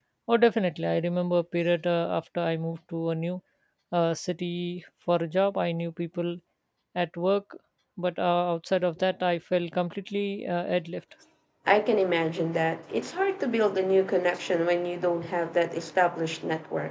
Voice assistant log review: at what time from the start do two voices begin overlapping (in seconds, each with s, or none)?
none